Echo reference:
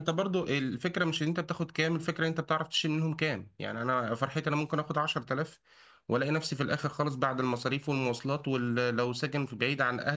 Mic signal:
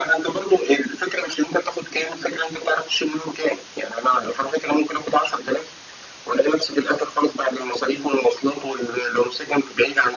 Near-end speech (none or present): none